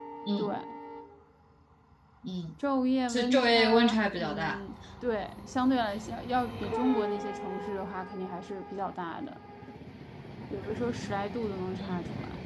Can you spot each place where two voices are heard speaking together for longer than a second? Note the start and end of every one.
3.1-4.6

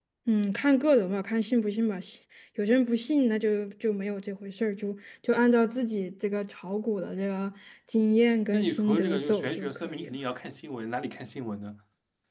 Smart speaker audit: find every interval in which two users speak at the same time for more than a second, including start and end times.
8.5-10.2

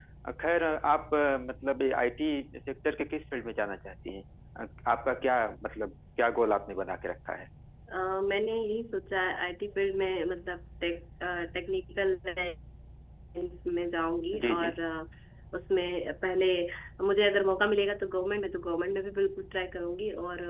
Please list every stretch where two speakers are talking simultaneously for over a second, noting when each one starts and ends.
none

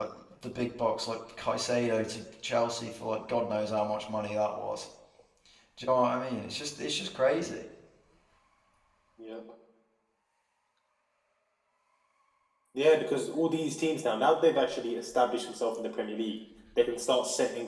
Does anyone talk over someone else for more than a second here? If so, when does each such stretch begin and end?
none

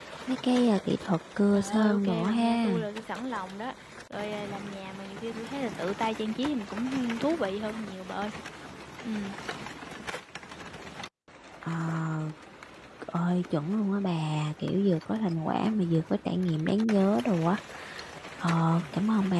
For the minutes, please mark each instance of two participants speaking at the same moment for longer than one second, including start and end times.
1.5-2.8

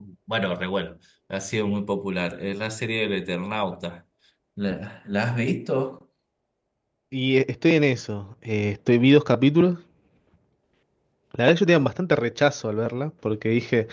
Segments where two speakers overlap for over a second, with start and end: none

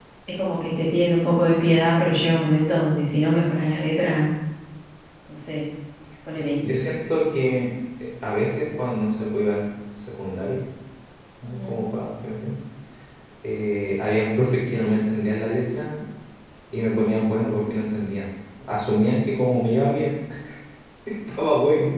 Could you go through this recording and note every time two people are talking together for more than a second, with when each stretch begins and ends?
none

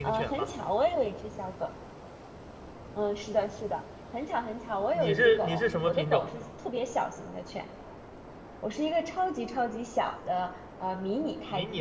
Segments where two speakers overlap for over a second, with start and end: 4.9-6.3

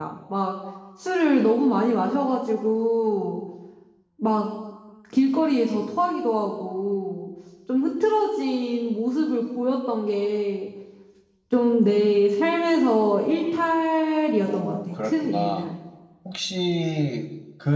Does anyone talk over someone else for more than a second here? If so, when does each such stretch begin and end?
14.4-15.7

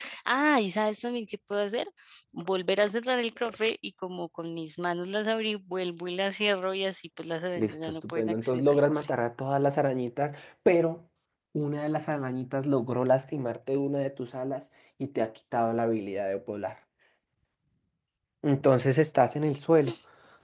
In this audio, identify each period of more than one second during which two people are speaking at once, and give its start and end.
7.6-9.1

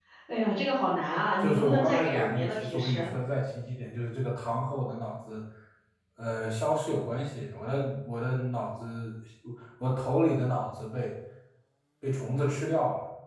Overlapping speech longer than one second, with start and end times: 1.4-3.1

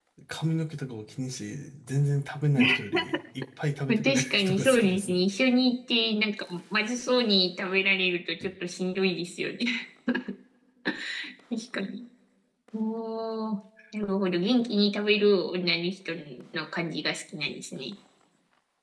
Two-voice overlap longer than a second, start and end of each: 3.9-5.2

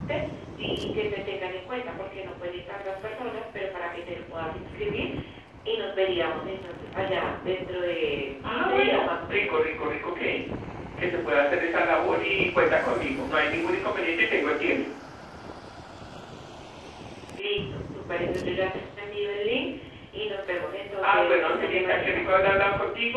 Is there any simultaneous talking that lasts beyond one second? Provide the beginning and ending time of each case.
8.4-9.7, 21.0-22.3

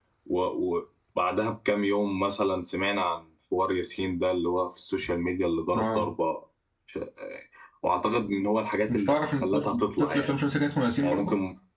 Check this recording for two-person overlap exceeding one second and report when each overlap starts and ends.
8.9-10.3

